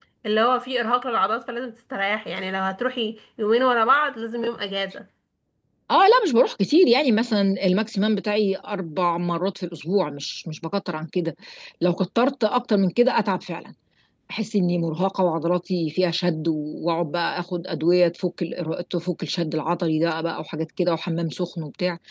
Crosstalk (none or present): none